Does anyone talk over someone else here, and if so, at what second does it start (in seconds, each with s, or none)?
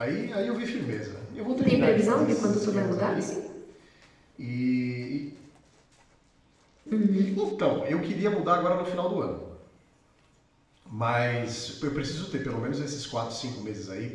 1.5 s